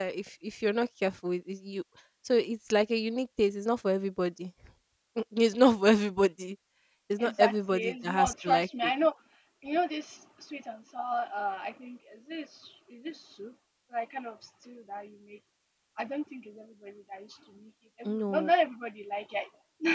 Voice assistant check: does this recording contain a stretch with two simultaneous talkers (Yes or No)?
Yes